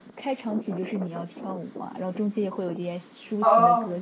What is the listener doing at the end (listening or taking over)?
taking over